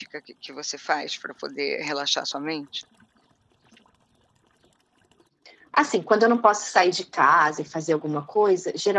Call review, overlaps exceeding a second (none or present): none